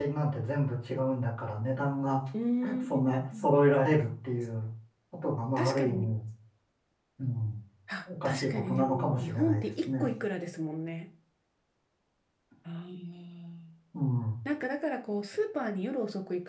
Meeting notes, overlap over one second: present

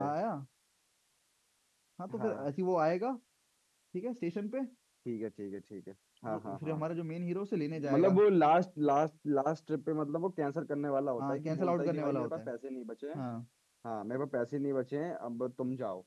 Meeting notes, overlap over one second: present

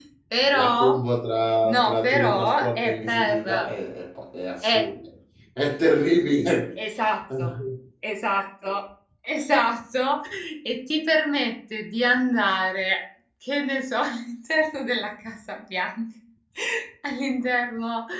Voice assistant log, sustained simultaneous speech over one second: present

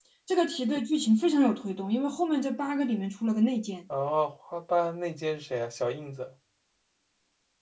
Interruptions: none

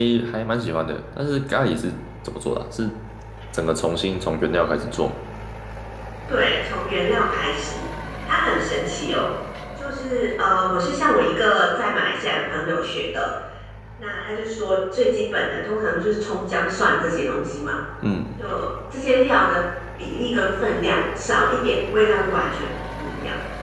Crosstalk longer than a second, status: none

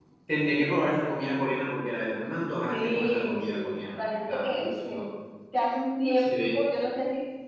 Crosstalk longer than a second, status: present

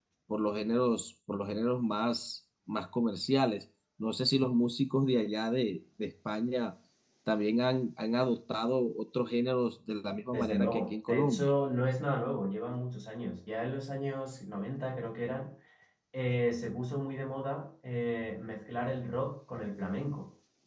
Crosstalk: present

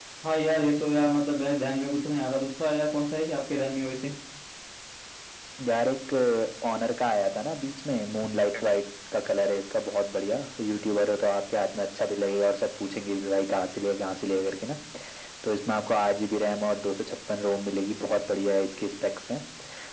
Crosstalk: none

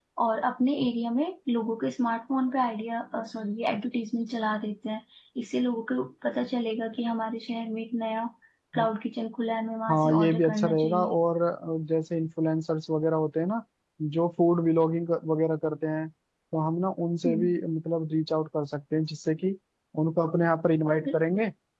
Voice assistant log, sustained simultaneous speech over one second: present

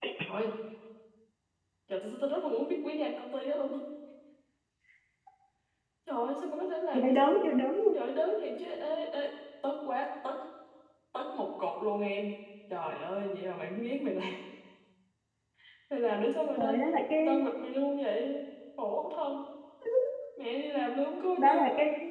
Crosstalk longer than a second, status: none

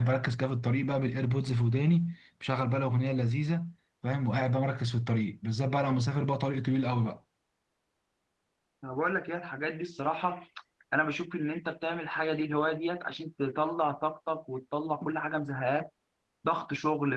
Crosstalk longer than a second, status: none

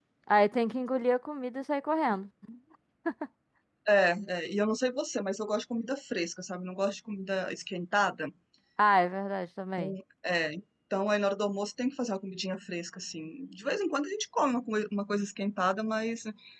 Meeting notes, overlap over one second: none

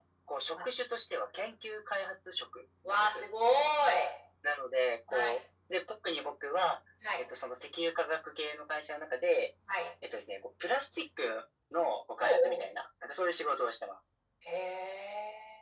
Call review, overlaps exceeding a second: none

